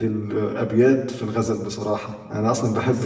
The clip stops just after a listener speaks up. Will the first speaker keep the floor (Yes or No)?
Yes